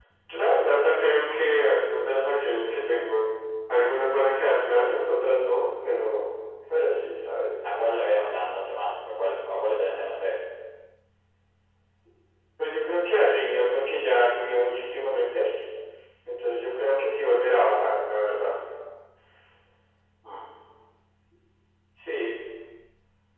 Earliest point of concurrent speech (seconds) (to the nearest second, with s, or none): none